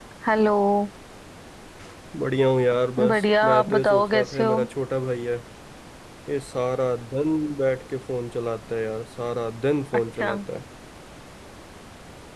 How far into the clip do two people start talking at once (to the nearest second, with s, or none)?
3 s